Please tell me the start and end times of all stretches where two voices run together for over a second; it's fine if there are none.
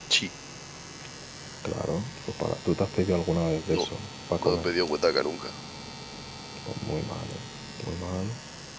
none

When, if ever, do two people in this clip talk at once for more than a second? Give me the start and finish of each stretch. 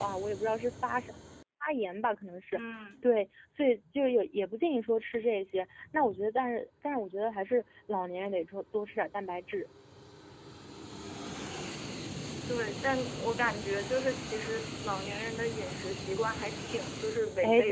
none

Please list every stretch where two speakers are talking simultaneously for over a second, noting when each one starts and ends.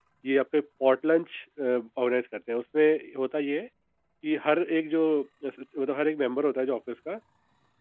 none

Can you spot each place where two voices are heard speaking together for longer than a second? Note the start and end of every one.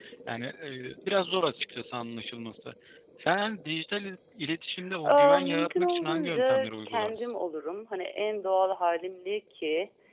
5.0-7.3

